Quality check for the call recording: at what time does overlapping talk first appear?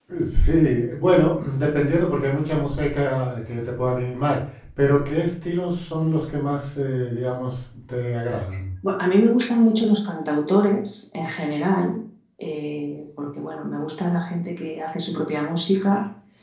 none

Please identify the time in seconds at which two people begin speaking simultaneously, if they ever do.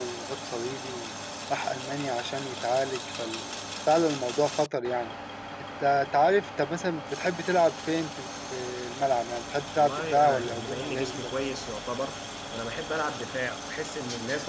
9.8 s

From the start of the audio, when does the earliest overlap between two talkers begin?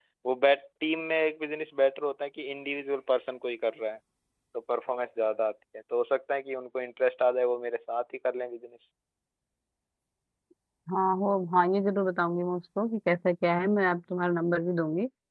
none

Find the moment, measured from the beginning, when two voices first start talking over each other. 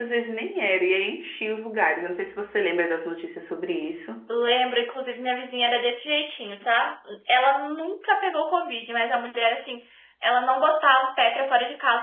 none

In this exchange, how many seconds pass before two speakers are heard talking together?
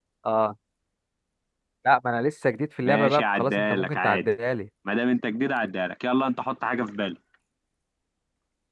2.8 s

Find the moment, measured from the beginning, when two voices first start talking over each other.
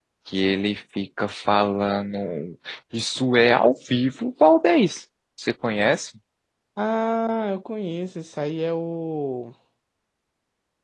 none

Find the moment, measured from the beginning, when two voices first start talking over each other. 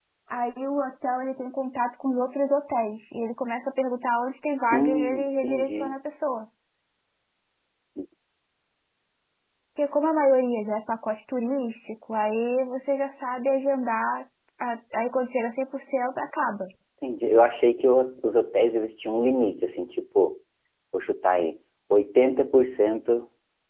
4.7 s

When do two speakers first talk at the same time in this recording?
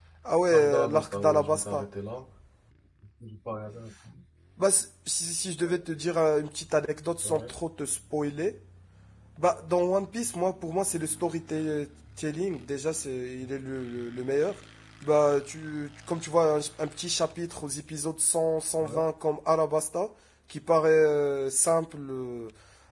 0.5 s

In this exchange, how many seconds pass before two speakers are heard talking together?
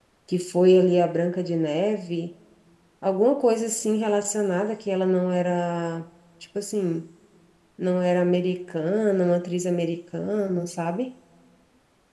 none

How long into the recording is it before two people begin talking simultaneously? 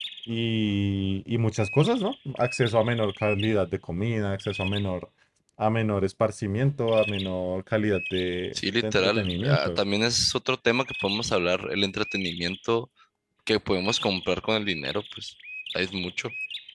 8.6 s

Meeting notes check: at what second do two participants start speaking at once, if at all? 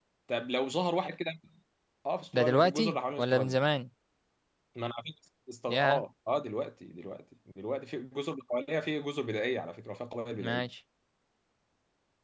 2.4 s

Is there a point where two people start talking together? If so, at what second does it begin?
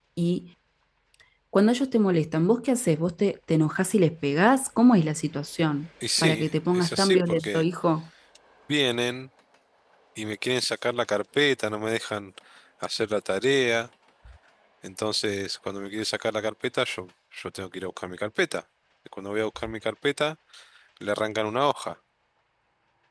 6.0 s

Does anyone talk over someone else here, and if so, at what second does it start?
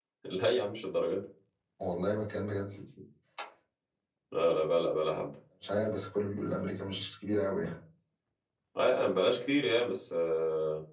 none

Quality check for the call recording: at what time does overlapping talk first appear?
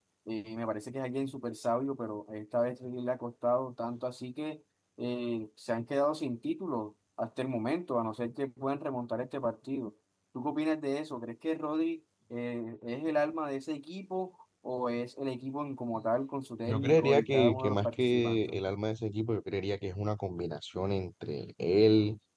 16.6 s

